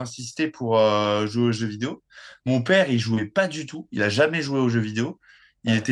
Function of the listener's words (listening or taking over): listening